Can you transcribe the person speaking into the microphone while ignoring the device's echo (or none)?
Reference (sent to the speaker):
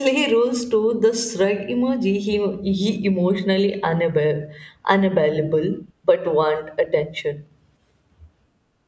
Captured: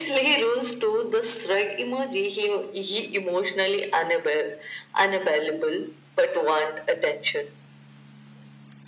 none